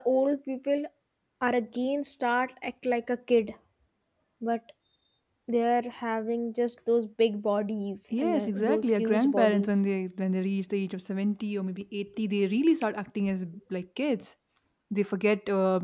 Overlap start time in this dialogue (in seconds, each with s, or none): 8.1 s